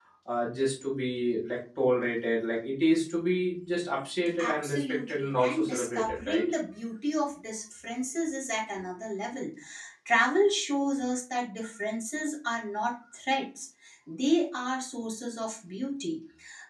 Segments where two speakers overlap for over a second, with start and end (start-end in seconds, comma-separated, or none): 4.4-6.4